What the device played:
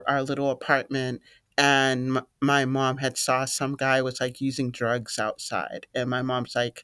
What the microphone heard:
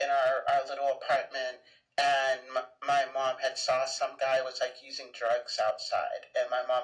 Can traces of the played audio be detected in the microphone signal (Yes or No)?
Yes